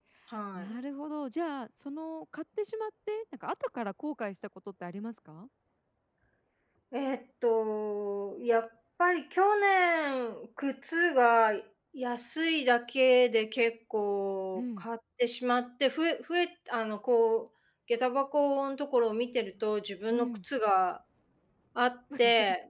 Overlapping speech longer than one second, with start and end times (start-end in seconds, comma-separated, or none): none